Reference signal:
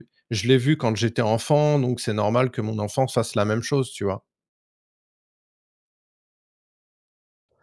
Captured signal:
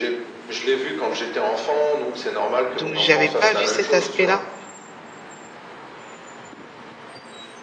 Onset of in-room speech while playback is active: 2.7 s

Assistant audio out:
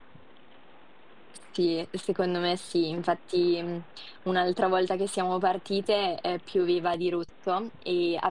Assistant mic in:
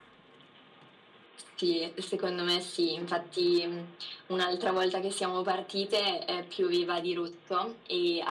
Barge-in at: none

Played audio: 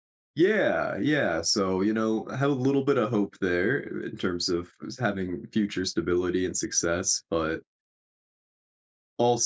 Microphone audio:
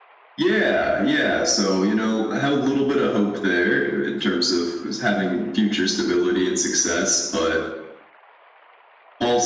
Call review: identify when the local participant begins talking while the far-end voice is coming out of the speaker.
none

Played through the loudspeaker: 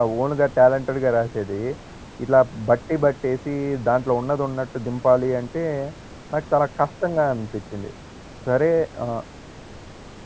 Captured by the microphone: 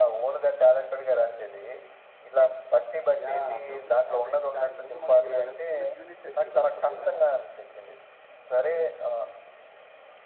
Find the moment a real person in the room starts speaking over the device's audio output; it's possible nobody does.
3.2 s

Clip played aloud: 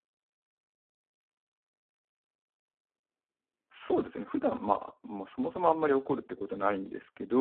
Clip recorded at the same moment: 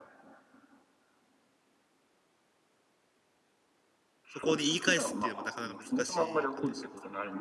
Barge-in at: 4.3 s

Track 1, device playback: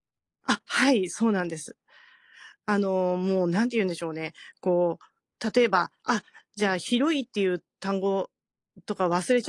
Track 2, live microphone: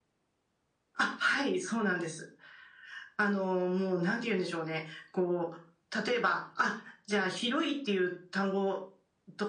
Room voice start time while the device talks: none

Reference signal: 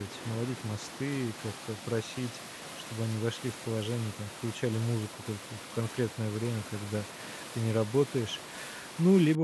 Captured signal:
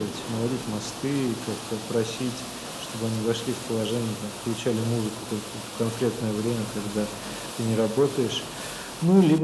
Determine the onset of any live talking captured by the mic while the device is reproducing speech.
none

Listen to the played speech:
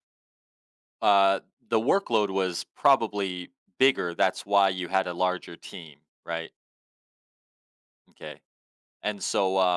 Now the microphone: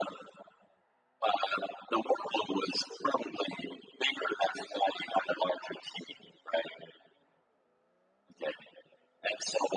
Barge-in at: none

